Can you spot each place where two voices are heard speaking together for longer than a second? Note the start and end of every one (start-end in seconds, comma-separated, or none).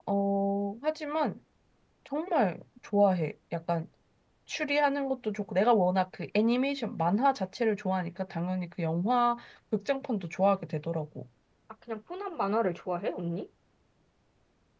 none